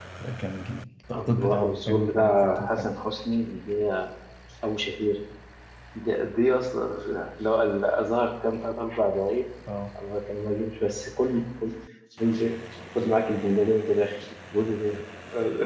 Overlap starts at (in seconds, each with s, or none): 1.1 s